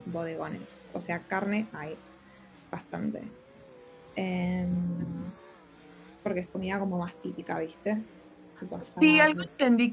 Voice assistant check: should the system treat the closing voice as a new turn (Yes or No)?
Yes